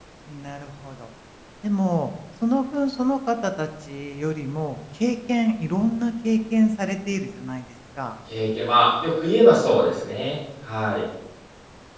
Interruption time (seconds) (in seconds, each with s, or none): none